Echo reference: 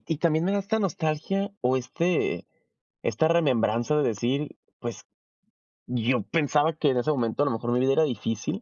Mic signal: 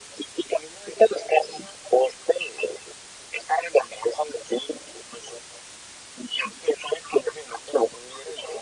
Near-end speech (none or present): none